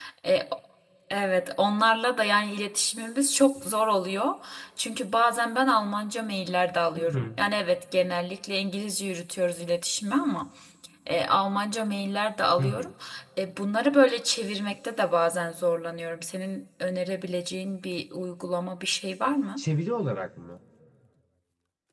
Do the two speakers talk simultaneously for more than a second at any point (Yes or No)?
No